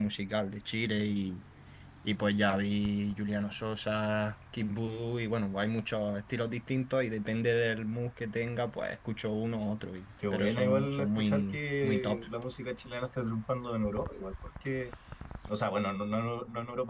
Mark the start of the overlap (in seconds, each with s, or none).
10.2 s